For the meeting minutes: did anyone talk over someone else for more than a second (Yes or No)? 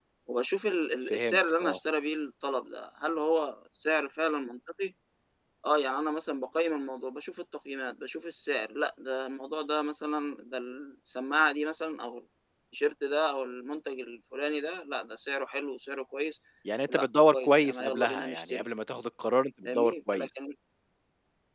Yes